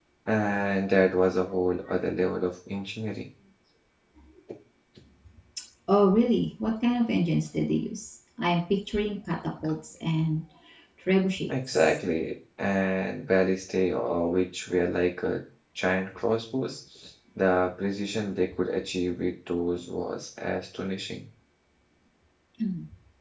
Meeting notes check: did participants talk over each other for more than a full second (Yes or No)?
No